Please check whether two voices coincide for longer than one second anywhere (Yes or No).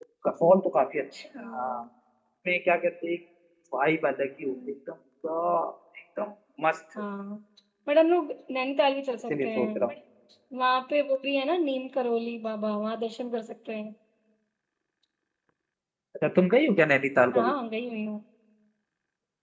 No